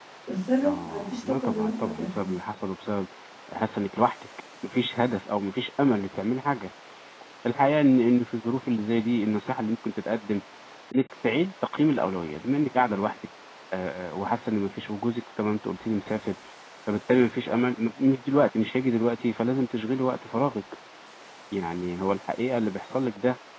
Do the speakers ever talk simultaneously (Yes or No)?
Yes